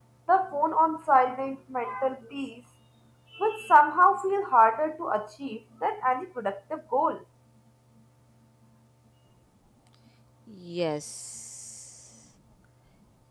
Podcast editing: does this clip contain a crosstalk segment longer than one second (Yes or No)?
No